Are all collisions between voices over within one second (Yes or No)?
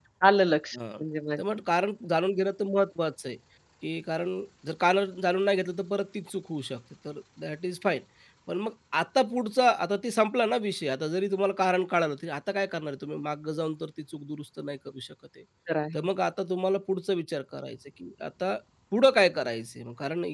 Yes